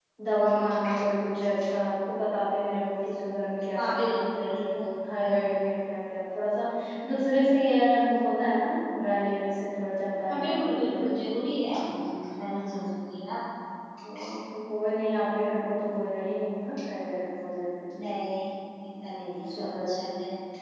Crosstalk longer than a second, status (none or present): present